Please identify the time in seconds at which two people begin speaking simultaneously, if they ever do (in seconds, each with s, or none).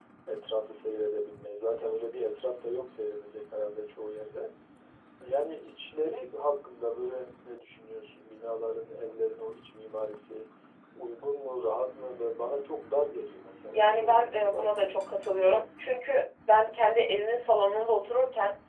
13.7 s